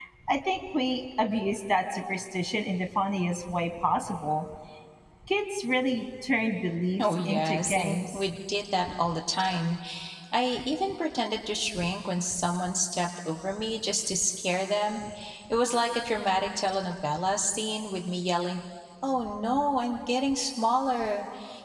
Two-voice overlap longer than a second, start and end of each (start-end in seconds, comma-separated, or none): 7.0-8.3